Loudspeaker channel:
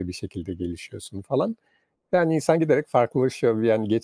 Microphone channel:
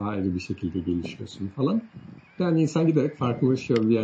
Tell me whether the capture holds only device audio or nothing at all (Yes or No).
Yes